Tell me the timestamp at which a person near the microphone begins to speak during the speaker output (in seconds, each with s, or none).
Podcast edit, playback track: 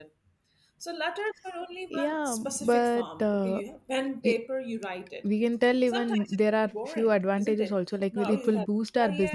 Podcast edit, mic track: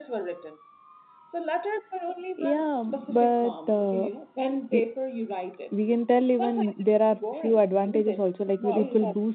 none